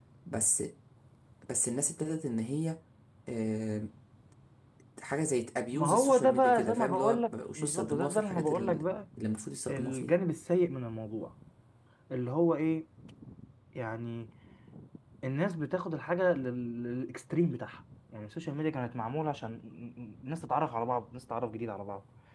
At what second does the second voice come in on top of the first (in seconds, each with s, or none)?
5.7 s